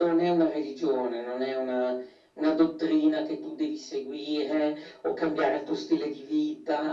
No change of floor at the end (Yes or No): Yes